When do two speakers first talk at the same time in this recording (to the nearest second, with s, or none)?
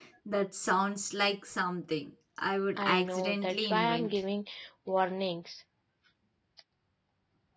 3 s